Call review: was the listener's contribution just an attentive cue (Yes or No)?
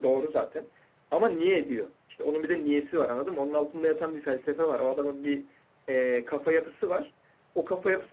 Yes